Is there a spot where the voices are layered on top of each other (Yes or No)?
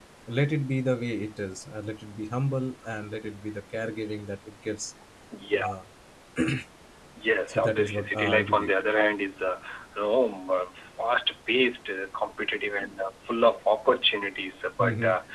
Yes